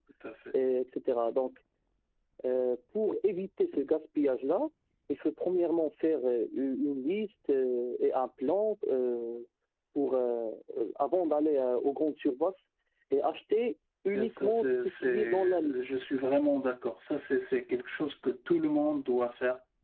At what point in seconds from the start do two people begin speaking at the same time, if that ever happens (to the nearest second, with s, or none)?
14 s